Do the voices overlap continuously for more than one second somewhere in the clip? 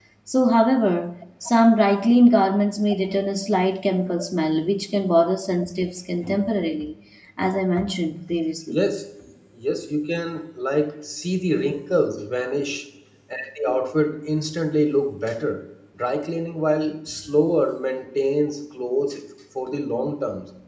No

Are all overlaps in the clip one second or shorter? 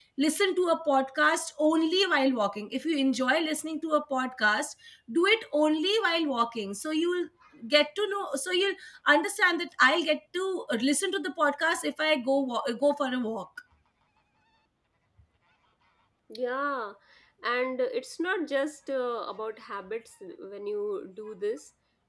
Yes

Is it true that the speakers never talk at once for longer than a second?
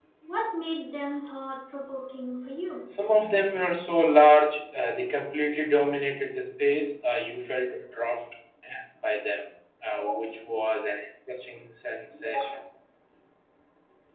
Yes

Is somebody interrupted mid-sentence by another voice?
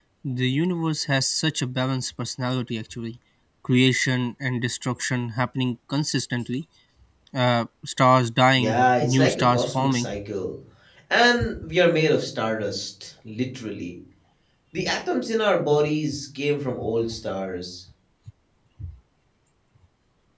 Yes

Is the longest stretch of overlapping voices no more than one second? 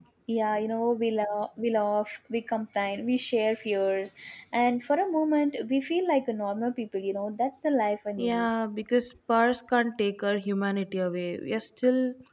Yes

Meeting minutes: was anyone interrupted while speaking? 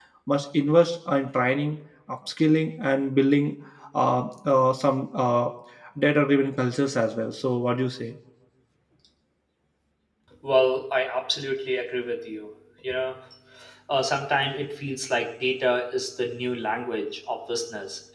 No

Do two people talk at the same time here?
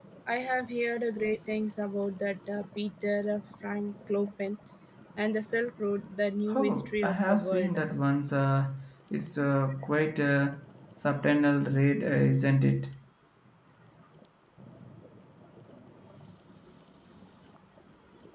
Yes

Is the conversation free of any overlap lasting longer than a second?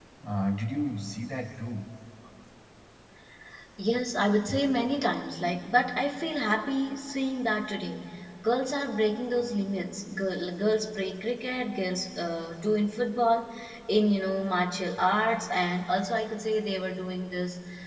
Yes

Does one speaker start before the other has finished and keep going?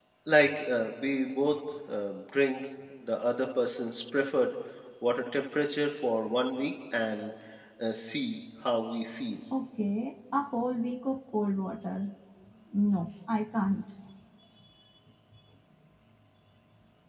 No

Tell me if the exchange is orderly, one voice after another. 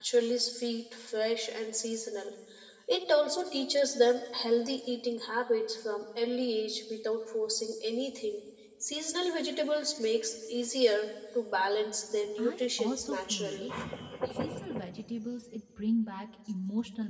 No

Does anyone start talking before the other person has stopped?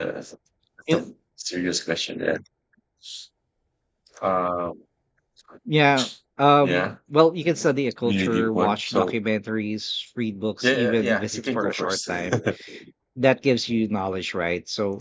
Yes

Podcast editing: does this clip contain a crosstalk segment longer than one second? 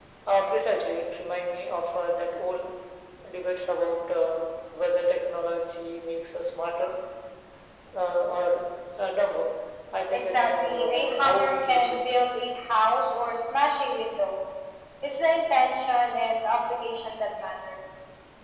Yes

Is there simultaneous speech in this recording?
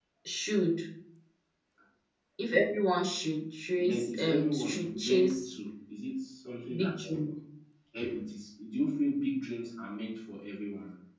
Yes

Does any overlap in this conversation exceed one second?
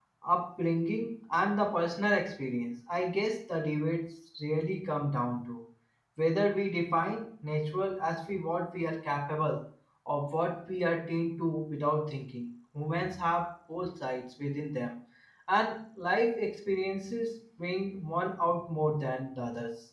No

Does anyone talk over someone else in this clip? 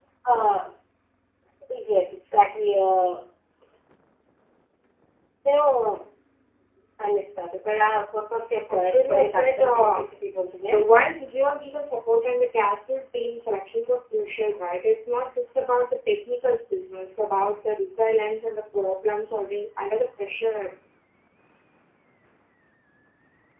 Yes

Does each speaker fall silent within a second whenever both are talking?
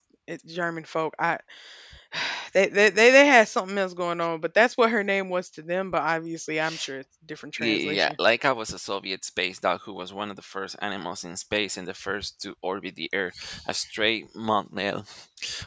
Yes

